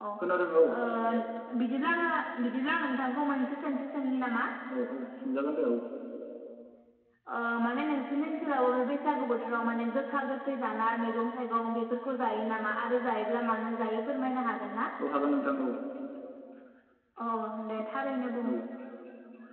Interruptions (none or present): none